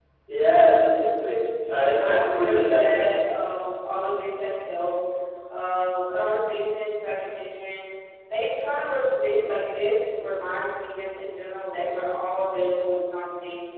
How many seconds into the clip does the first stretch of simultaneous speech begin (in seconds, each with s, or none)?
1.6 s